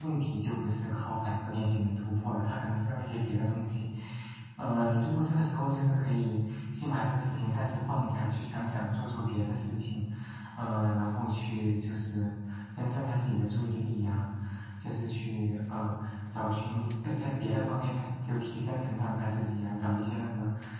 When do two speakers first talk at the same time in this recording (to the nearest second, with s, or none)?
none